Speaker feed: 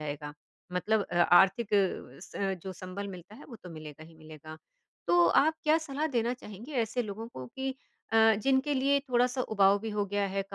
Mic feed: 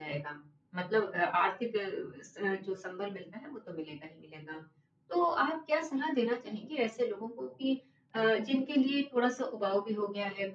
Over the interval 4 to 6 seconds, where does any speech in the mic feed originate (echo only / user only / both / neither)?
echo only